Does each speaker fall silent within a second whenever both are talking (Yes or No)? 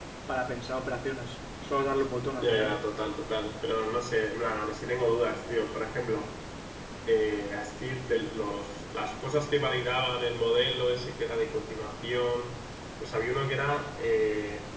Yes